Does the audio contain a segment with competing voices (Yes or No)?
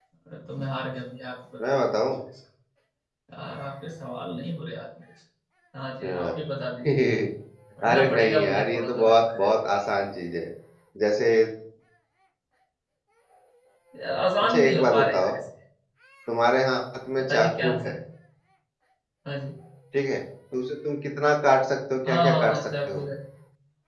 Yes